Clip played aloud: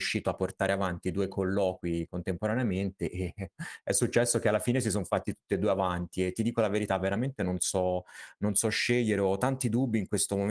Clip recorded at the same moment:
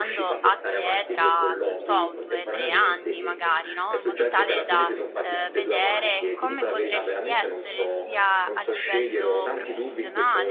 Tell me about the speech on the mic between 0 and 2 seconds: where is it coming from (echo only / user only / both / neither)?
both